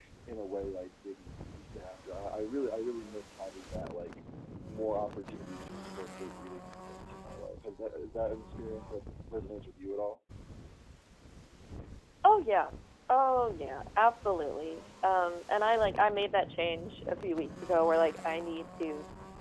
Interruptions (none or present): none